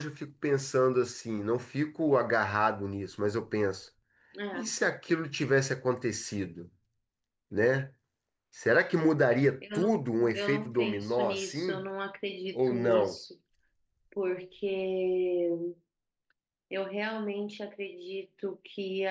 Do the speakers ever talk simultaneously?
Yes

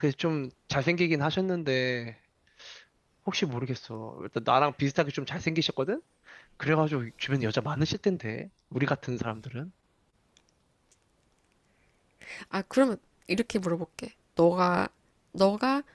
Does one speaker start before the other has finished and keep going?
No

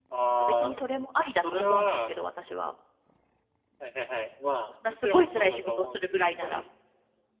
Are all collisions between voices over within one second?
No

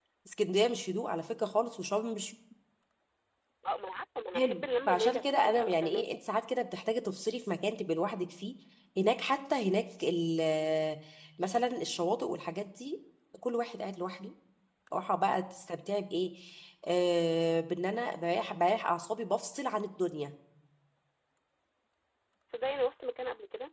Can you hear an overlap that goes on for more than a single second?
Yes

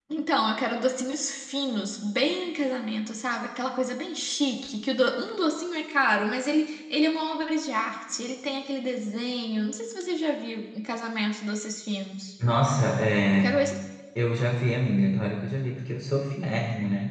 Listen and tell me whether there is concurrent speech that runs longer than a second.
No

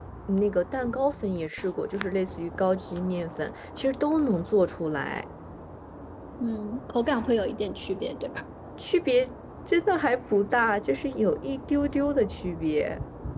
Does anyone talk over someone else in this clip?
No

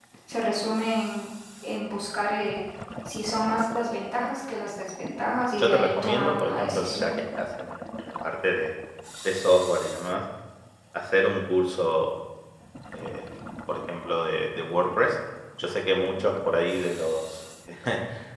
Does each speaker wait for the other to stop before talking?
No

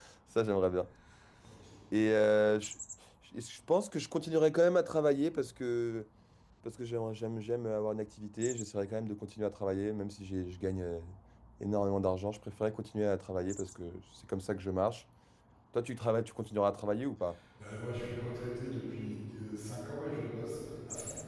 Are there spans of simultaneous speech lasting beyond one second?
No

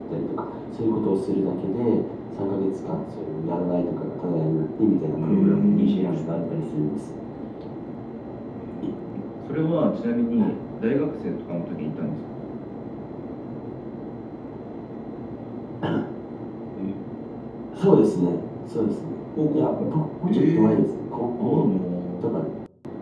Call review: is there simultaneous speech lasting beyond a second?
Yes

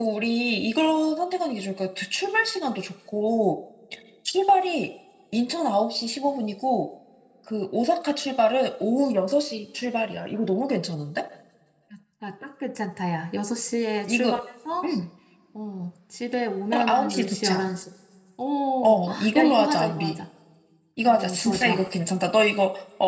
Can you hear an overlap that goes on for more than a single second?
Yes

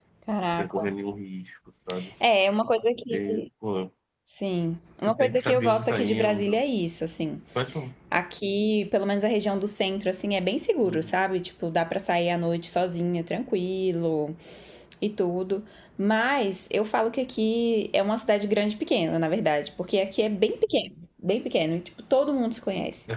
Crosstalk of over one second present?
Yes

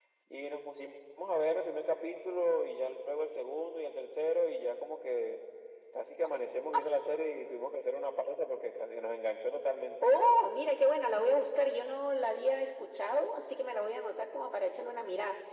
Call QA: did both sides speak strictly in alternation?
Yes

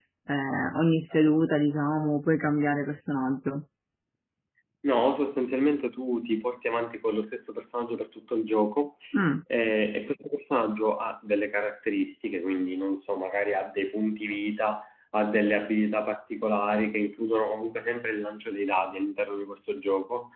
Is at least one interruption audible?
No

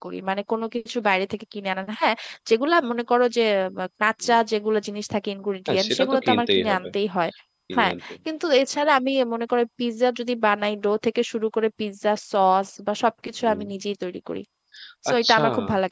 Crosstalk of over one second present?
Yes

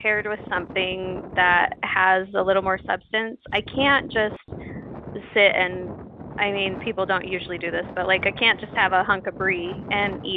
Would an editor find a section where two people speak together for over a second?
No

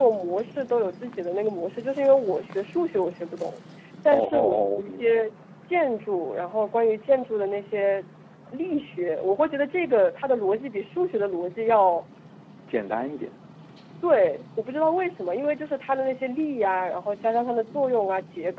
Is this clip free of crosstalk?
No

